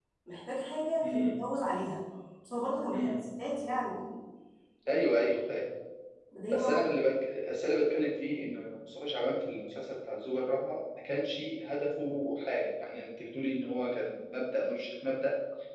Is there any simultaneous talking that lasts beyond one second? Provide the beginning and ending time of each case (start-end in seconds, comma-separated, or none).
none